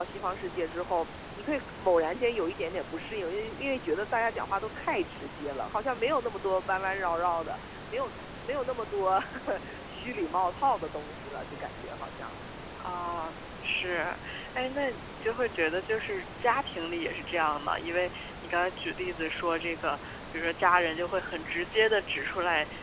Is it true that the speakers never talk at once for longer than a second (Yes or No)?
Yes